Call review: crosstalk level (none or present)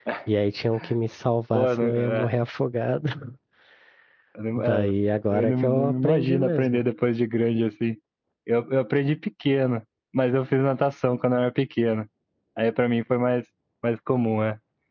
present